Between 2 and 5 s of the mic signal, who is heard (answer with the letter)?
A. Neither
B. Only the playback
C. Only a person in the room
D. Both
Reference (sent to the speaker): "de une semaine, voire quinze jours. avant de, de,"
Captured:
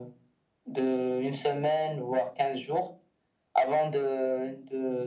B